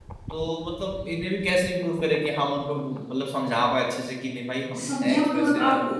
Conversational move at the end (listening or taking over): taking over